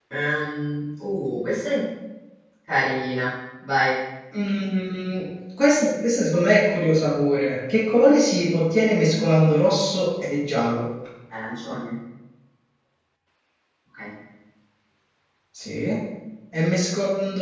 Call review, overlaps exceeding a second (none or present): none